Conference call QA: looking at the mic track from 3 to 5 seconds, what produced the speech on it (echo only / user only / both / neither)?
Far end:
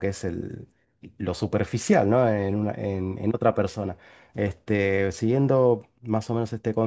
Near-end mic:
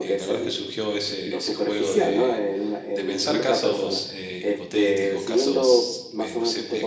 both